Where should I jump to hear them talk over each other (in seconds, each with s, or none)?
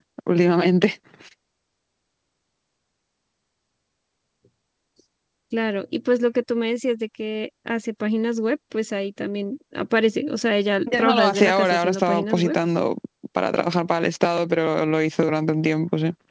10.9 s